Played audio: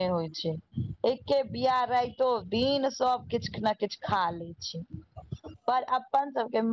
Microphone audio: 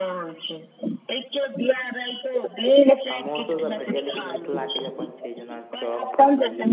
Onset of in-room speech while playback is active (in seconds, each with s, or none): 3.0 s